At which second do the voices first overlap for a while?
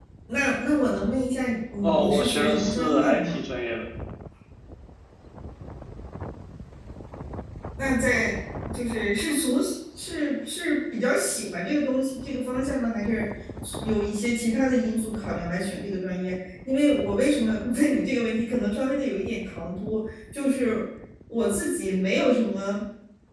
1.8 s

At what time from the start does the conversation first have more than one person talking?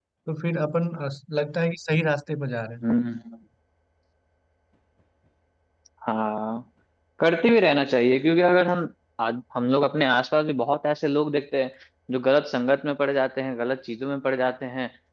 none

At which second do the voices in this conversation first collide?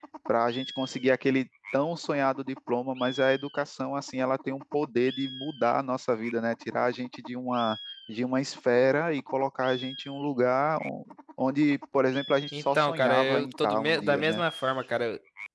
12.5 s

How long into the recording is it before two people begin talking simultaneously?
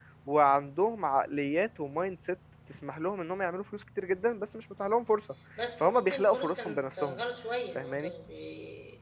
5.8 s

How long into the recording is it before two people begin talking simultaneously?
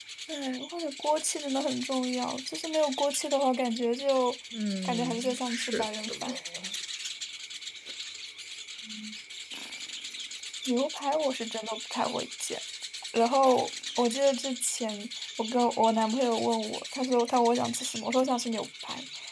4.8 s

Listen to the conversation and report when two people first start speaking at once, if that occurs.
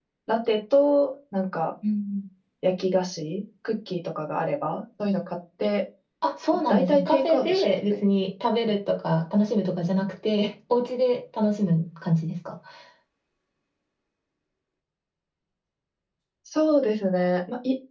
6.7 s

